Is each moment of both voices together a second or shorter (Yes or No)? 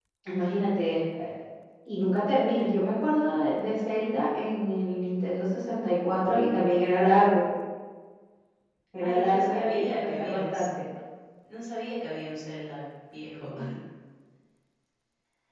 No